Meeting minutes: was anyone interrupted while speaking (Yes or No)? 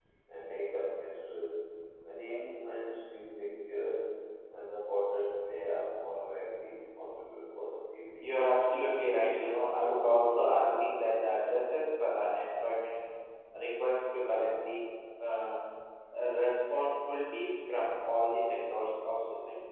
Yes